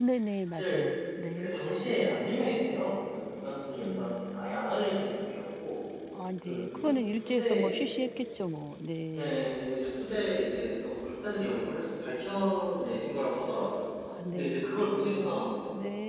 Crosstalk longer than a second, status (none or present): present